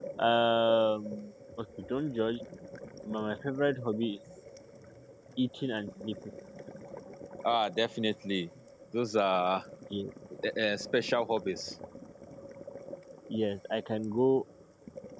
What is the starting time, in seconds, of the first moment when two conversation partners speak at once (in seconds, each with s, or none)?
none